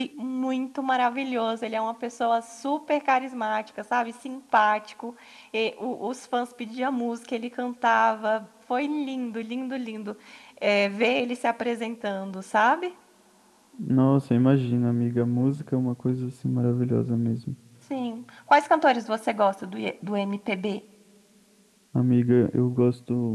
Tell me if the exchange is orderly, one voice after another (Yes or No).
Yes